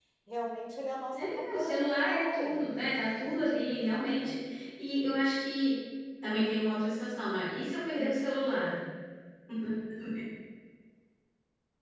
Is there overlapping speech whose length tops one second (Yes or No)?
Yes